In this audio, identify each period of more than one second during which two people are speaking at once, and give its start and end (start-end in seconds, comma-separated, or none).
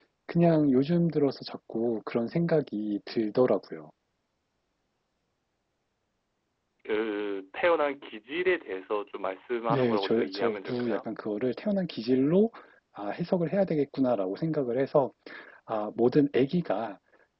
9.7-11.1